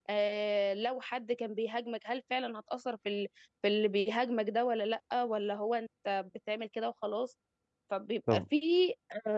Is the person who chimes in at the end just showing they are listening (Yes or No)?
Yes